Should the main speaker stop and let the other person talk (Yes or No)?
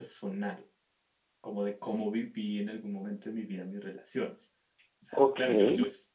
No